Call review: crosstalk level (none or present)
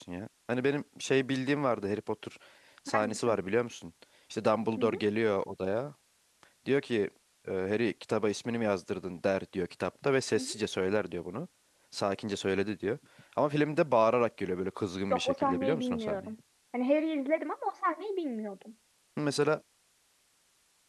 present